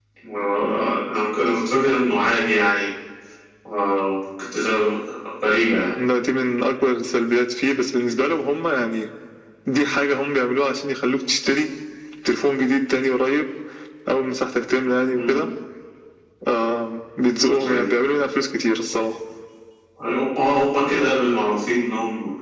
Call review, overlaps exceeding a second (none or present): none